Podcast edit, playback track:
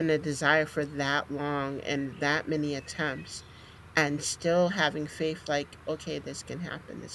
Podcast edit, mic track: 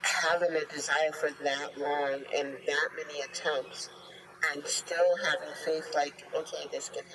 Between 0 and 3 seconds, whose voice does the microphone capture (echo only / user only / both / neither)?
echo only